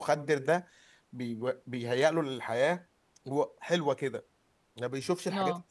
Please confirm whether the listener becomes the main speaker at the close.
No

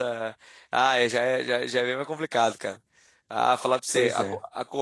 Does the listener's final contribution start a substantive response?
No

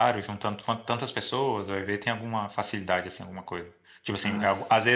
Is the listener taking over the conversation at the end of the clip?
No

